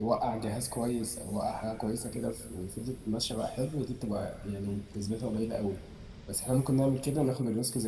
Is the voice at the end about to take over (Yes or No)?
No